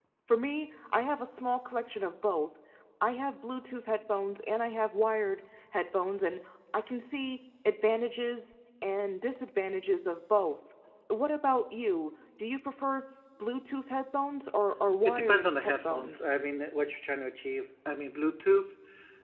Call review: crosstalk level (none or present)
present